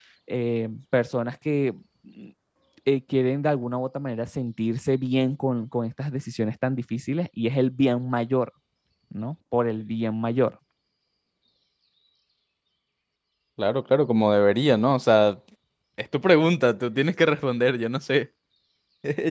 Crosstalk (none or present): none